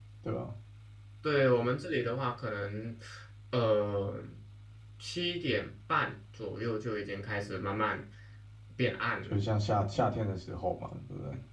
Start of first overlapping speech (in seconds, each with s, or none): none